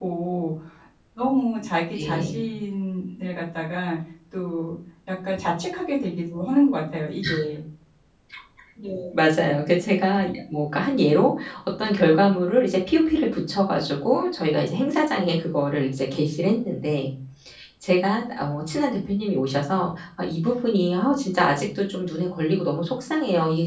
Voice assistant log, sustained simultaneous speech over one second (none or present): none